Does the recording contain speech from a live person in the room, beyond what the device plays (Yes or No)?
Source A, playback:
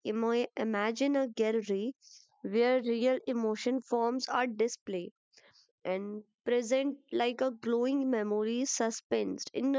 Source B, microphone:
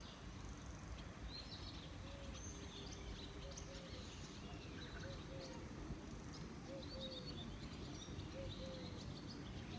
No